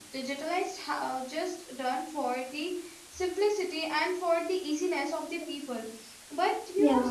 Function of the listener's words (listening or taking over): listening